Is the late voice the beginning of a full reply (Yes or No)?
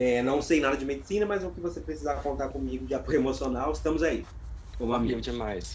Yes